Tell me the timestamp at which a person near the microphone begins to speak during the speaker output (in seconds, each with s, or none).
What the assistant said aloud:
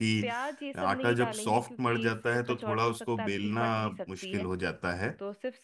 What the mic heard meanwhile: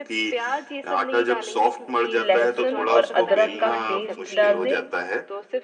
2.2 s